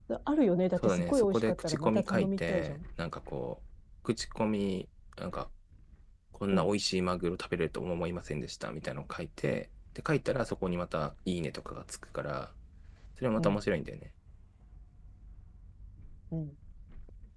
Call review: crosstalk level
present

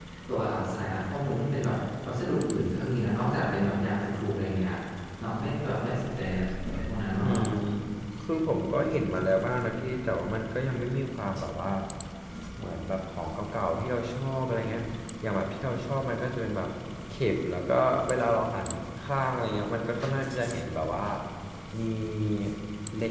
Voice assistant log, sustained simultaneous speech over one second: none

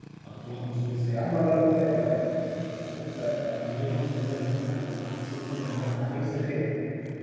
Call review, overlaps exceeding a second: none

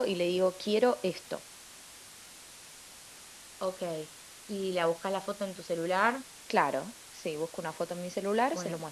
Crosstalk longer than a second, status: none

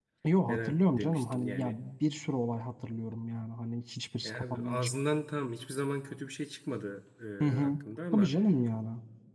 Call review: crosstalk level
present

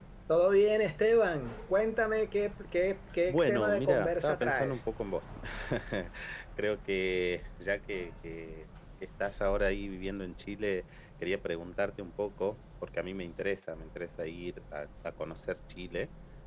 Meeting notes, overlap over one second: present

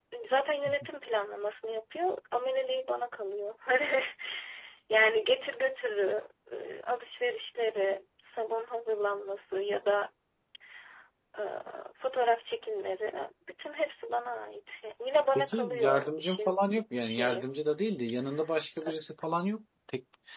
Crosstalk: present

